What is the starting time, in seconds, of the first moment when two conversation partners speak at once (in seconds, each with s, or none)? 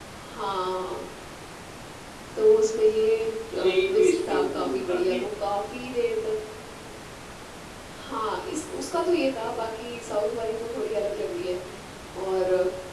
3.5 s